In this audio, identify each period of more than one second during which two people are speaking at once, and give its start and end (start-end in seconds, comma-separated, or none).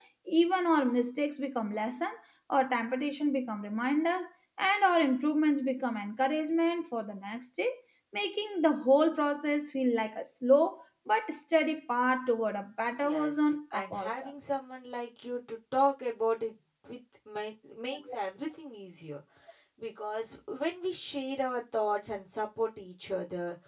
13.0-14.3